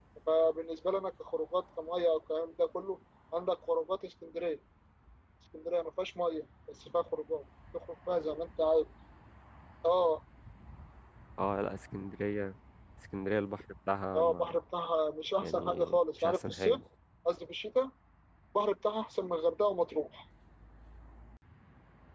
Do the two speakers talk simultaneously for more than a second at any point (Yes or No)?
Yes